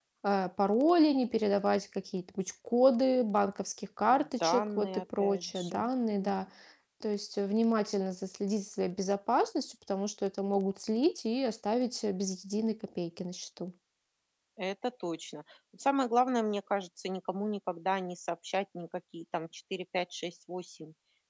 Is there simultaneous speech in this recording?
Yes, from 4.4 s

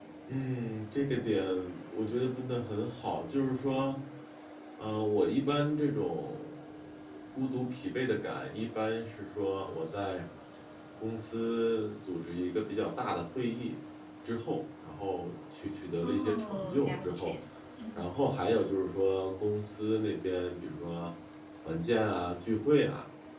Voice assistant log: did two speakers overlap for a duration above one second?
Yes, from 16.0 s

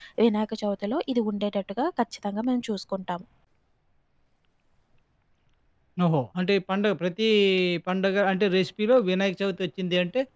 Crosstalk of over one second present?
No

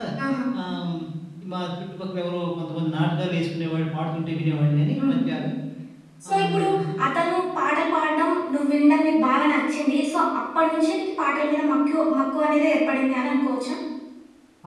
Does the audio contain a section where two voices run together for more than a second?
No

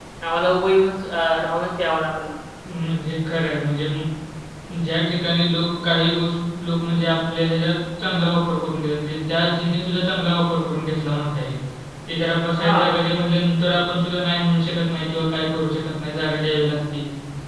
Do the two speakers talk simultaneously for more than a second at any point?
No

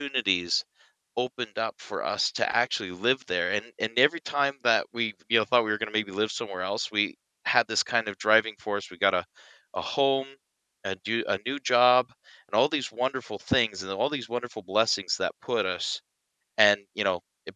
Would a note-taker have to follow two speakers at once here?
No

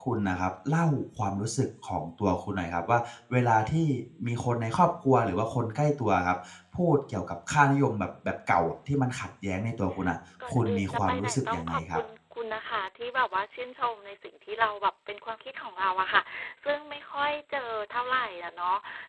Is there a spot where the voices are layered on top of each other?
Yes, from 10.4 s

